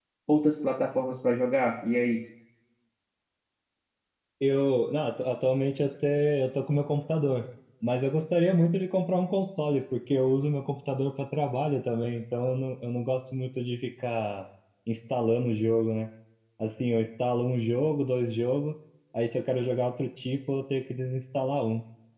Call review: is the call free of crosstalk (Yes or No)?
Yes